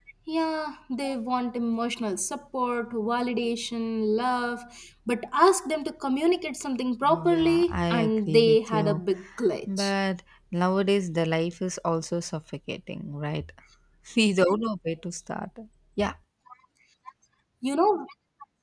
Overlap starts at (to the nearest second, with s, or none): 7 s